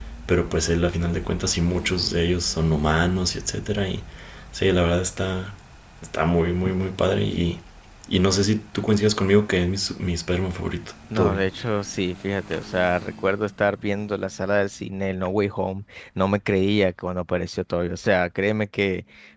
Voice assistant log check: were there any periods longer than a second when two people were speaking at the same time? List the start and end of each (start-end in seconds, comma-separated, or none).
none